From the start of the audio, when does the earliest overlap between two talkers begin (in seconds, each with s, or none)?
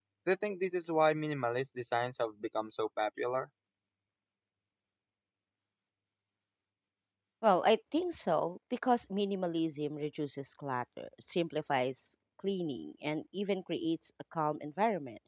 none